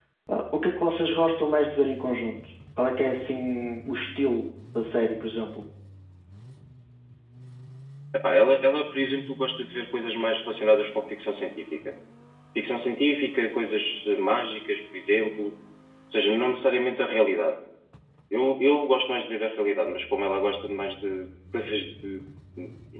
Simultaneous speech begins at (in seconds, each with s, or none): none